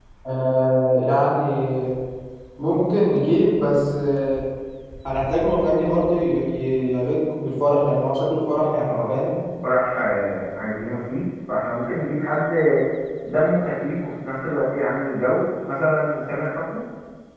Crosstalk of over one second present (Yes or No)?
No